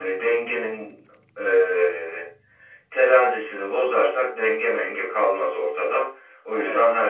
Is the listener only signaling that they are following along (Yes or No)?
Yes